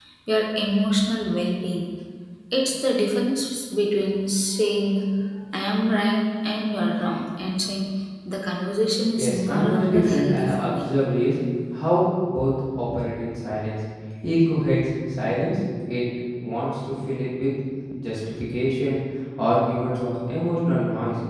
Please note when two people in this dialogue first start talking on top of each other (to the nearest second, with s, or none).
9 s